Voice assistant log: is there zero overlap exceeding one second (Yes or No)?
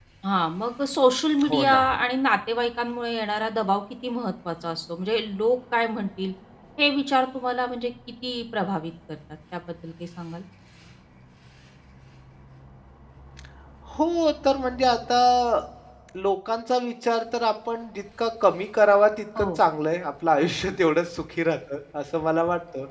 Yes